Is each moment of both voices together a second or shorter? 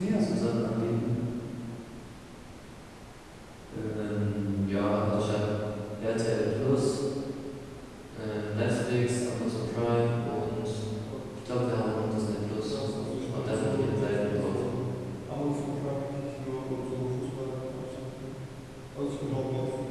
No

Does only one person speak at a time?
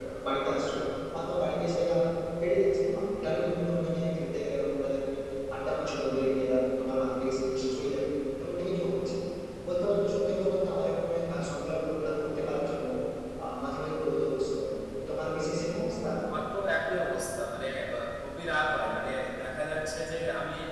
Yes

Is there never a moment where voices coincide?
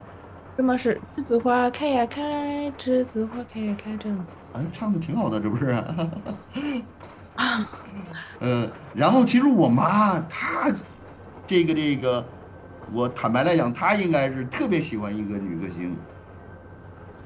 Yes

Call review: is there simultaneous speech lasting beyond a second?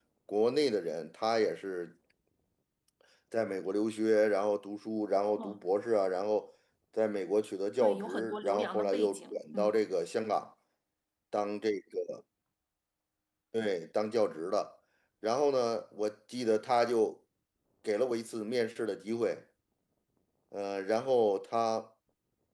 Yes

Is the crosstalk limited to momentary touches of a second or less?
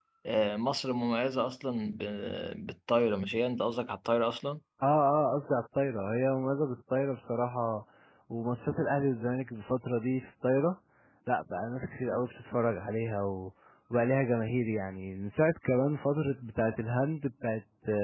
Yes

